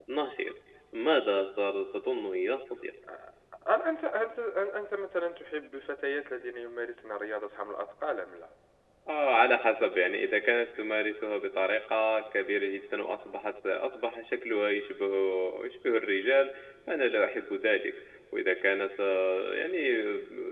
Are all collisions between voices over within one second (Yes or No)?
Yes